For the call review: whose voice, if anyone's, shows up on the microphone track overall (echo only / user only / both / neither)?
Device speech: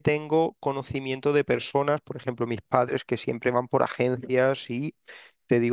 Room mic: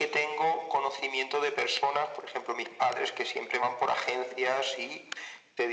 echo only